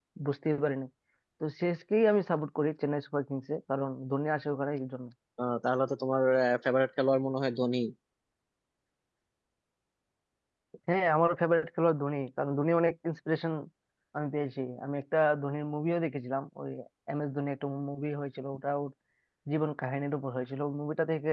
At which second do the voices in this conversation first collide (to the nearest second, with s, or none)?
none